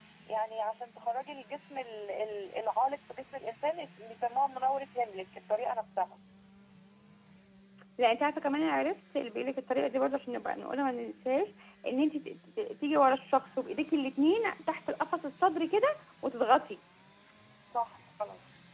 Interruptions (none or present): none